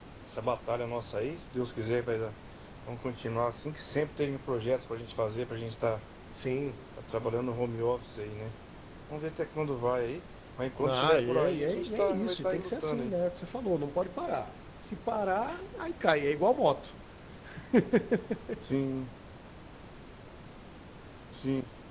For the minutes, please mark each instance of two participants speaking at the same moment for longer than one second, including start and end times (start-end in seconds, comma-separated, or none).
10.8-13.1